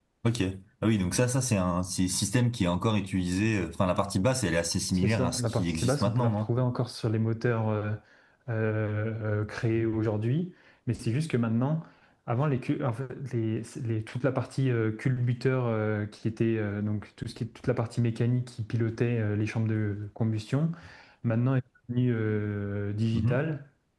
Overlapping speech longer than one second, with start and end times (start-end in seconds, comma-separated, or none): 4.9-6.5